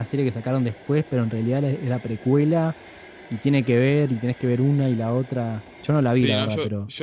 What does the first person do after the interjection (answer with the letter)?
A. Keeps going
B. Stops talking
B